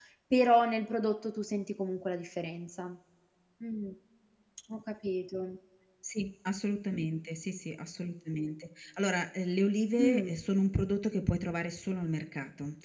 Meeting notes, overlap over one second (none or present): none